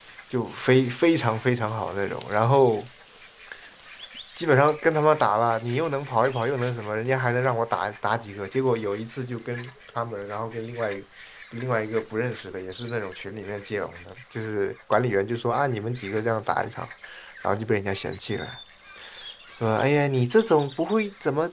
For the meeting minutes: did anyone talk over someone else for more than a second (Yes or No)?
No